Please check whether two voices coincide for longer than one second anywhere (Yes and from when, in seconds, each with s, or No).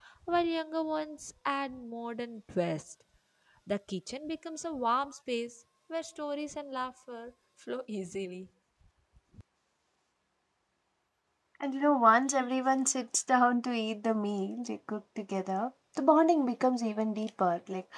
No